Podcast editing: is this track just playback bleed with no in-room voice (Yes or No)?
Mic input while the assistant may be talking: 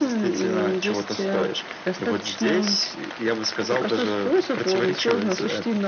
Yes